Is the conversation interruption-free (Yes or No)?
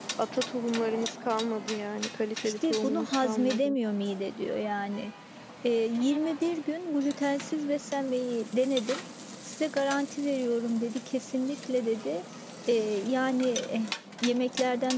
No